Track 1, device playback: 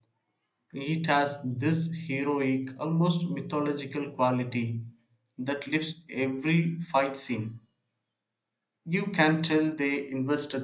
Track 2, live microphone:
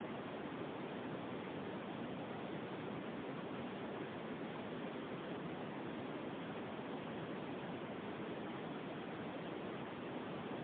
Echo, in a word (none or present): none